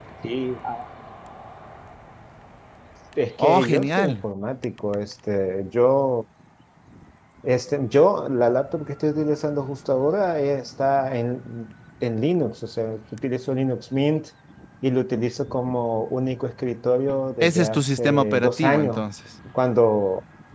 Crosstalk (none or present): present